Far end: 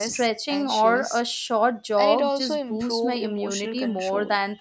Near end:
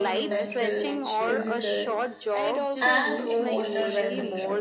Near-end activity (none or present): present